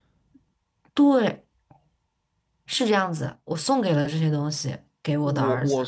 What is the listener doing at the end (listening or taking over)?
taking over